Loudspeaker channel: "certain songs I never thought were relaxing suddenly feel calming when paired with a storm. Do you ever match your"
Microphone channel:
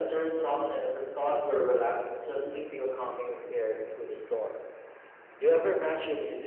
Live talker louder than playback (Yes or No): No